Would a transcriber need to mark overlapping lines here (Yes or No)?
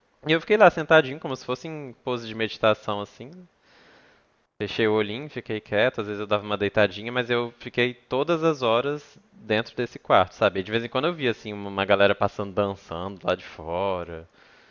No